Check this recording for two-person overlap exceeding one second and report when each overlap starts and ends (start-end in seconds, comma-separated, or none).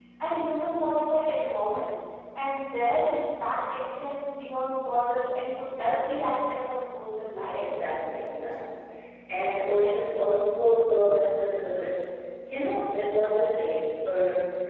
none